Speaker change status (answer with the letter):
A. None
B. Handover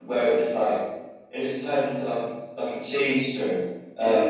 A